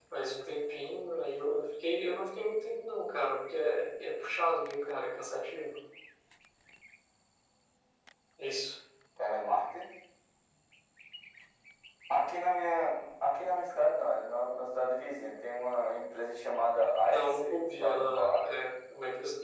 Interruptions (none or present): present